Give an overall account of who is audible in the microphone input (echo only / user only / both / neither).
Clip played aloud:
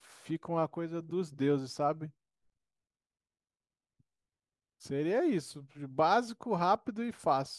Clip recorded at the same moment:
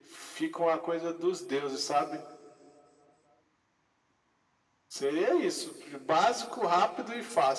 echo only